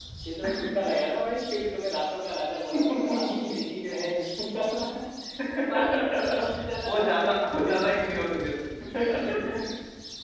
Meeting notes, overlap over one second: present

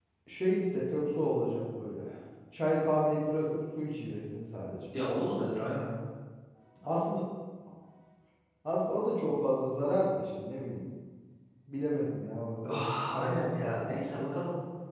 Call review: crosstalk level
present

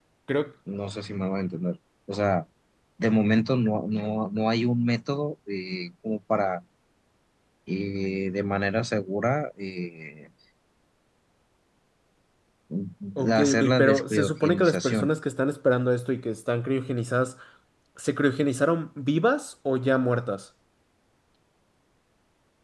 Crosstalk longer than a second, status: present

